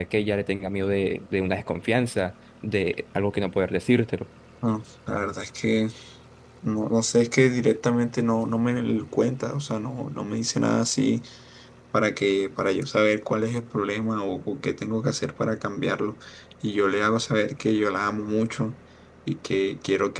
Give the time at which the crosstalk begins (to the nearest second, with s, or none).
none